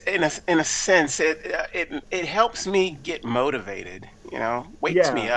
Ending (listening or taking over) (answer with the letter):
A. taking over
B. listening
A